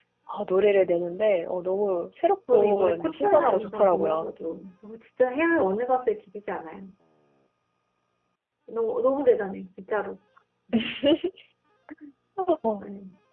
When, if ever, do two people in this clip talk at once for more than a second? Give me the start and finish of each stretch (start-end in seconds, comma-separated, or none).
2.5-4.3